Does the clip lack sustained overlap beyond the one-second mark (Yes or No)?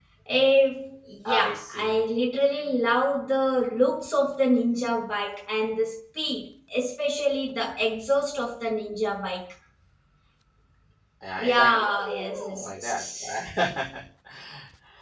No